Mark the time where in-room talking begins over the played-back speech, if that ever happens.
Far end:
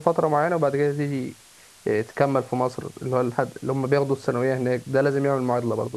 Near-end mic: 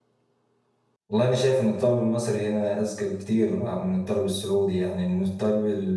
1.1 s

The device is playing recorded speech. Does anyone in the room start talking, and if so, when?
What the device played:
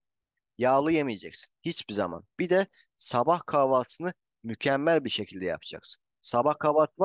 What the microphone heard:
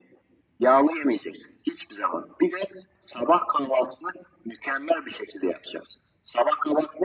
none

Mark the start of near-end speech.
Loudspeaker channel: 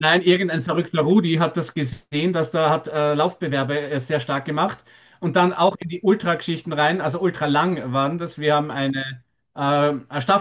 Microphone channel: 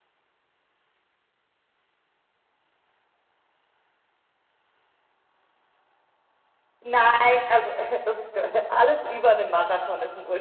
6.8 s

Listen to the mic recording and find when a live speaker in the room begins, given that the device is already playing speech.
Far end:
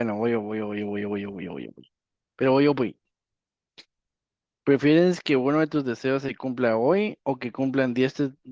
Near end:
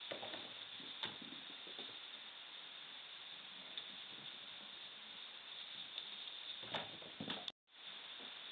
none

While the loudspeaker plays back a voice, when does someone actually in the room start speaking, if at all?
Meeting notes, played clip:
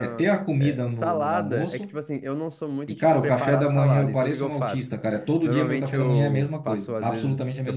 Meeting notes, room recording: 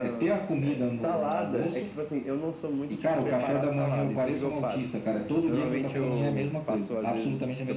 none

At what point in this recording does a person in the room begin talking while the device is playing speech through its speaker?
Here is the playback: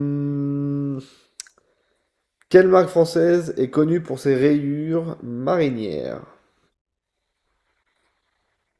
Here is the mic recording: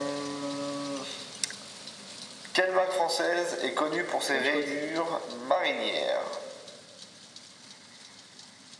4.3 s

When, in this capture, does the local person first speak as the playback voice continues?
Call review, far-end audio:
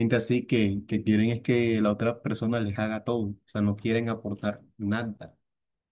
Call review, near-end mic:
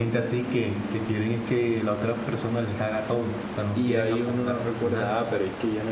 3.5 s

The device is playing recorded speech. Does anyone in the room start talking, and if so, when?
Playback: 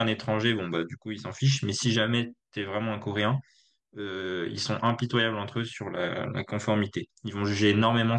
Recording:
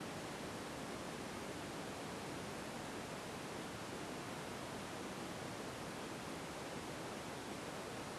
none

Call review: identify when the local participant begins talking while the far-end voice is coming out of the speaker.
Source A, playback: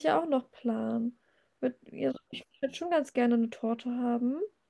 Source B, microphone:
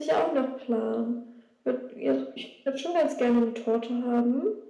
none

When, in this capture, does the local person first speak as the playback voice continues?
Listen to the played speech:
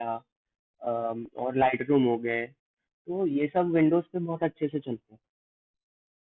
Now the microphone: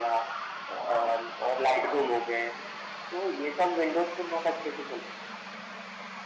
none

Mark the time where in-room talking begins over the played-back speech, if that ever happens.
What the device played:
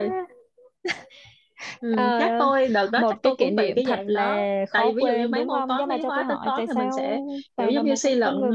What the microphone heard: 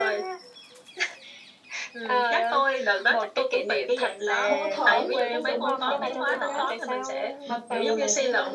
4.4 s

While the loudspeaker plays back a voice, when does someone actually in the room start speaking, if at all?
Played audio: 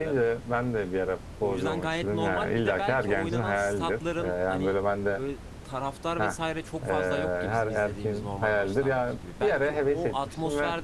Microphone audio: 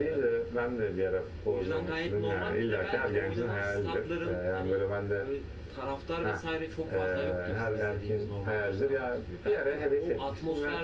none

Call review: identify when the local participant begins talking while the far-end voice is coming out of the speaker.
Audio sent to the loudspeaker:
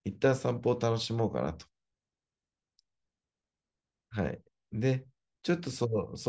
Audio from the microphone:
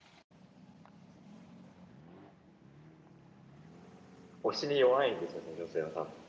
4.4 s

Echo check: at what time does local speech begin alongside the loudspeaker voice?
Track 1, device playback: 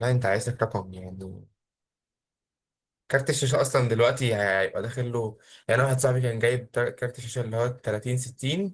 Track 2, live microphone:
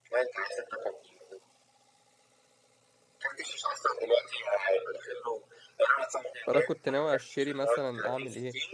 6.5 s

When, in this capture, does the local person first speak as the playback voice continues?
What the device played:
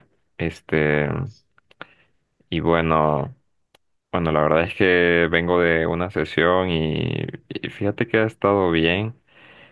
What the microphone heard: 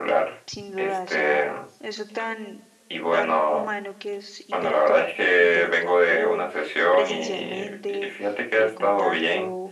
0.5 s

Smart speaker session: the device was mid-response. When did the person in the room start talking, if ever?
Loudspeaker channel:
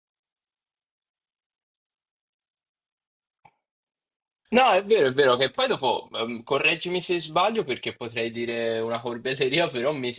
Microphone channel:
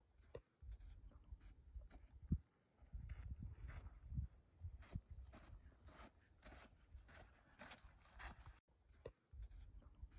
none

